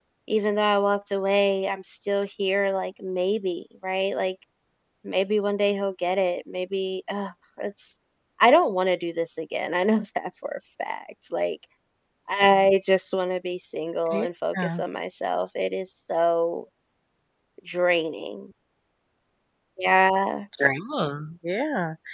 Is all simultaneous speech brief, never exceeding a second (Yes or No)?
Yes